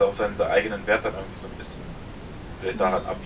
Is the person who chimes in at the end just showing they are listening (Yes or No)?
No